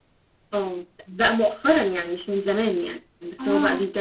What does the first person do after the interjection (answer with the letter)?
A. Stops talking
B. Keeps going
B